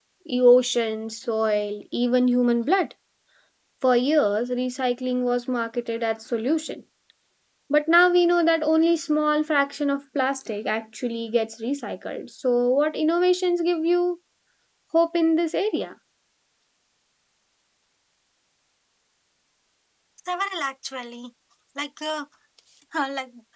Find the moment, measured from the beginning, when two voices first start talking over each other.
none

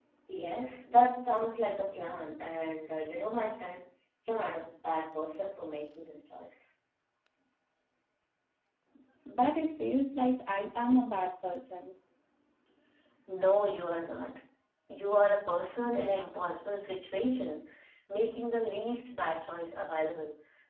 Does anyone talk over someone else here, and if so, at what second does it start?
none

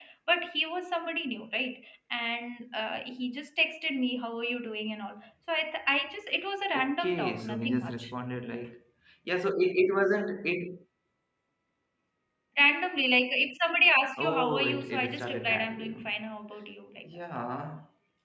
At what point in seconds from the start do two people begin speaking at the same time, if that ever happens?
6.7 s

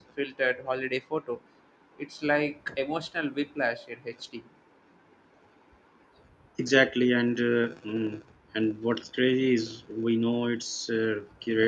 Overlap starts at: none

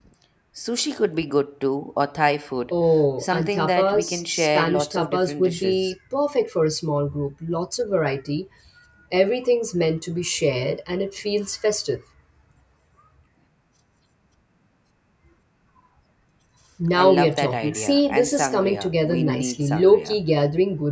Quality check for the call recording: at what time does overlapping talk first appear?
3.2 s

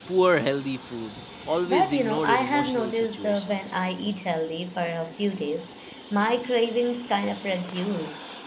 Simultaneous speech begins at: 1.7 s

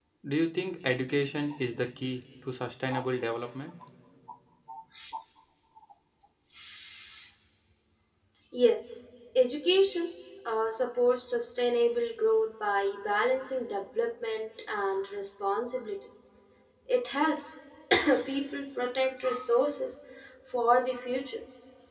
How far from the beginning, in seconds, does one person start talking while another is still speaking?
none

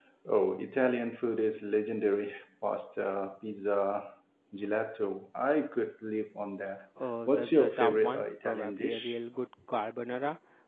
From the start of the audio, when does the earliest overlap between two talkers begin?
7.3 s

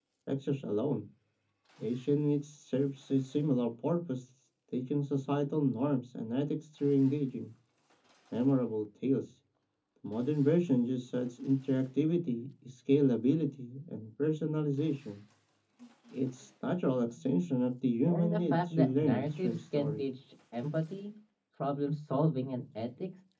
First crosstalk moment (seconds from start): 18.1 s

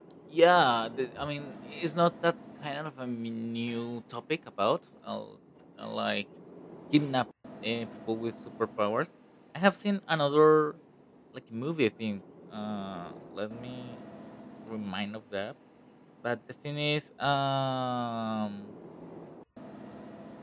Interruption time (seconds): none

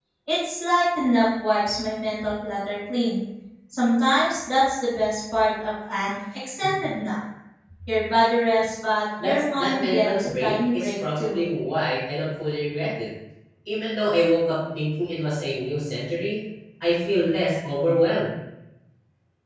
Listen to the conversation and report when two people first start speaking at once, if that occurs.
9.2 s

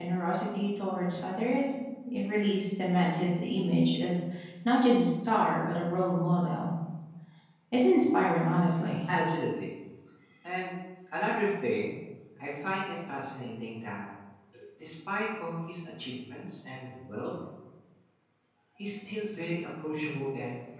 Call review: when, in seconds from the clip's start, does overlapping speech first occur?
none

